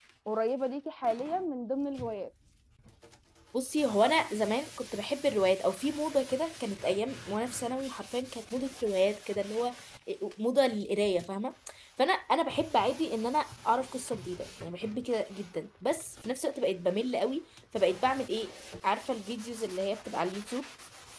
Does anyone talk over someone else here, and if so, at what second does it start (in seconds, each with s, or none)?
none